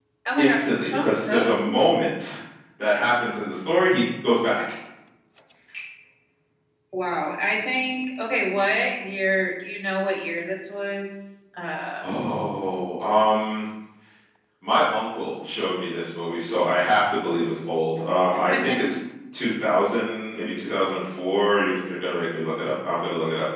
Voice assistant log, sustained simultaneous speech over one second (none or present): present